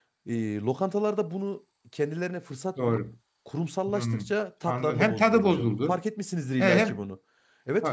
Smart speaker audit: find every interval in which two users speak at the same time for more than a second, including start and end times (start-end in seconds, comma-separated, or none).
4.7-6.0